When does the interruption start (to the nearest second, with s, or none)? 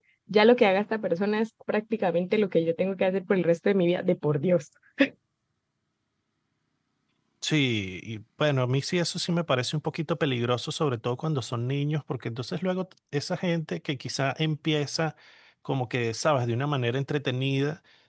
none